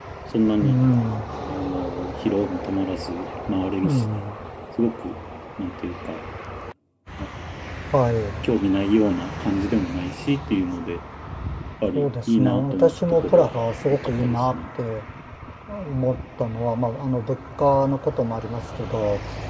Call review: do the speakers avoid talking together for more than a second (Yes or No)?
No